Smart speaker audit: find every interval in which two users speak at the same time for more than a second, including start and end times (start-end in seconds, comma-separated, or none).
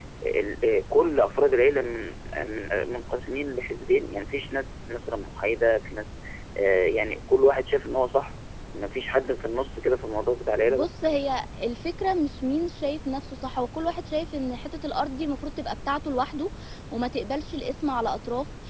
none